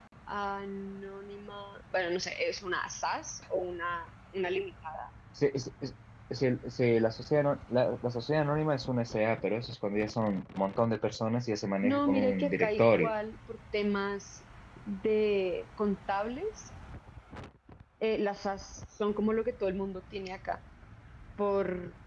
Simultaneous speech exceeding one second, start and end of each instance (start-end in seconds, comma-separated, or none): 11.8-13.1